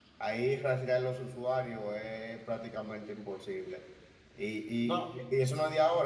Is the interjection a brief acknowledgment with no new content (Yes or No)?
Yes